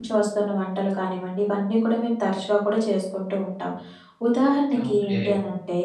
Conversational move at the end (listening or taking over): listening